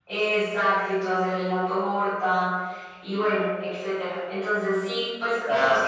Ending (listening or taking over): listening